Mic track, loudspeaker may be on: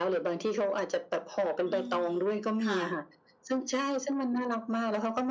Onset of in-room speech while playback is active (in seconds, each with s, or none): 1.6 s